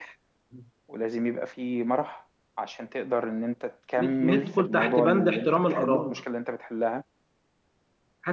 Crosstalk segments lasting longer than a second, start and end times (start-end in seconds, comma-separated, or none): 4.0-6.2